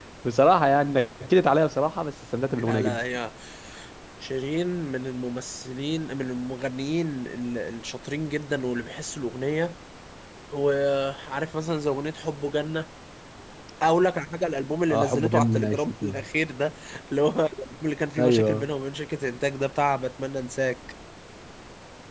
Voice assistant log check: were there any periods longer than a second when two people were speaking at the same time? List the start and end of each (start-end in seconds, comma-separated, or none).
14.9-16.2